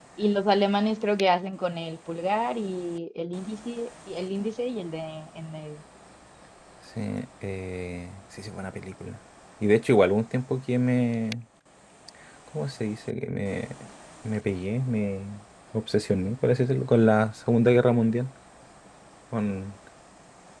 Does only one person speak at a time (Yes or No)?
Yes